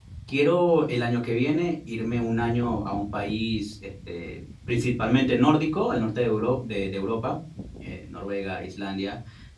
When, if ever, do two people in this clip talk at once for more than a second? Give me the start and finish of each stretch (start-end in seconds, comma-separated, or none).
none